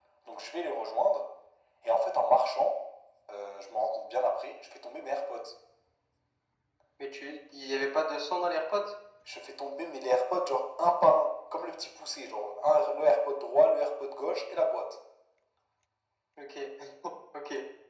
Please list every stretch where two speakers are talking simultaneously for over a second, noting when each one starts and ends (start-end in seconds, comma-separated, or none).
none